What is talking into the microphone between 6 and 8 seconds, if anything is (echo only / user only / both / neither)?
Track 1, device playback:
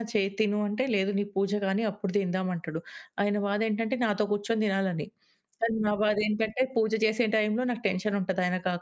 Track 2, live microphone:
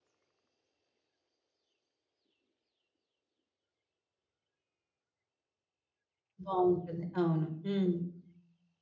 user only